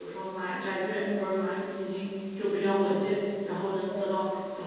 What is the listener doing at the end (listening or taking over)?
listening